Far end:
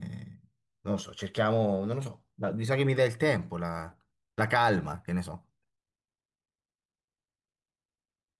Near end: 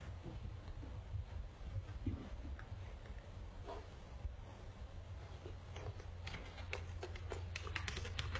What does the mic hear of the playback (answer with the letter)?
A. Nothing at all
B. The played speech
A